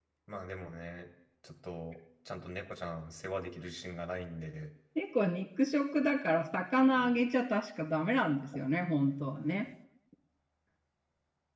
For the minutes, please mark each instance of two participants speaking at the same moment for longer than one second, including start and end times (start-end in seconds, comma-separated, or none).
none